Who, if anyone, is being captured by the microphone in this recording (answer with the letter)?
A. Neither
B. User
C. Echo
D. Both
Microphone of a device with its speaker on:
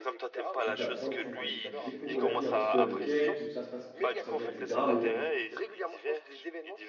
D